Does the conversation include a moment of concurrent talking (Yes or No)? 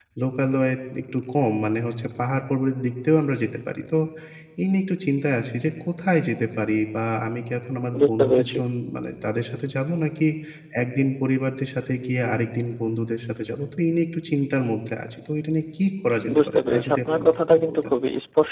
Yes